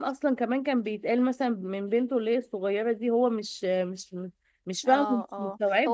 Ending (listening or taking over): taking over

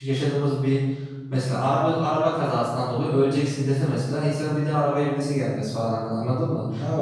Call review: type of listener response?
taking over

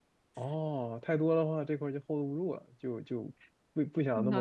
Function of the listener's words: taking over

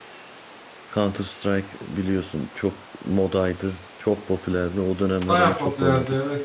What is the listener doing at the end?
taking over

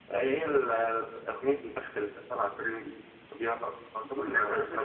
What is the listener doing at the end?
taking over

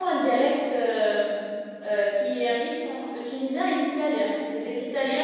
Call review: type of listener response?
listening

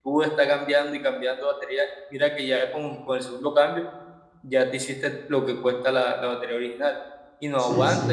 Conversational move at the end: listening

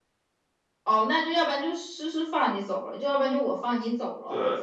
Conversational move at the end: taking over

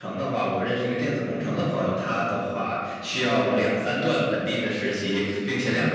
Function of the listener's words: listening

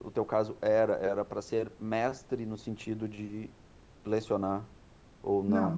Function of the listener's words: taking over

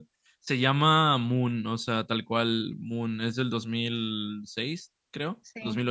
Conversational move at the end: listening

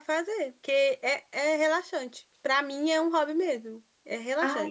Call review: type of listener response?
taking over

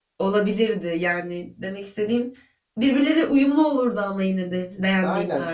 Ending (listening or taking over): taking over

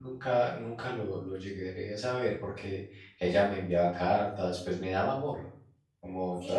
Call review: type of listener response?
taking over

